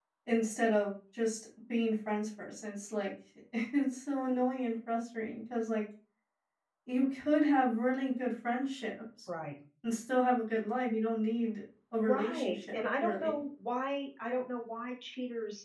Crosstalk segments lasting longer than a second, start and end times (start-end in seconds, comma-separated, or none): 12.0-13.4